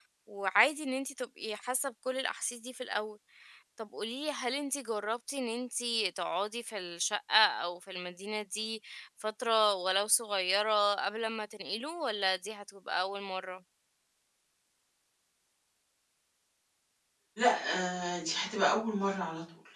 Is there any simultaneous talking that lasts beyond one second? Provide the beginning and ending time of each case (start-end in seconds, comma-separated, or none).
none